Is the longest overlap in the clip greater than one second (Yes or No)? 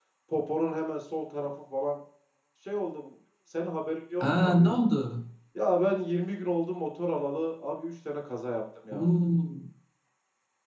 No